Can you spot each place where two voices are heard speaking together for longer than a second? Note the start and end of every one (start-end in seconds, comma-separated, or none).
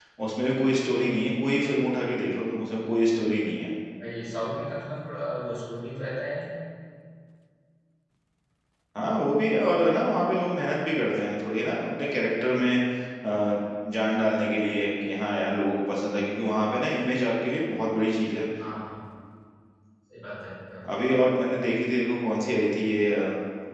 none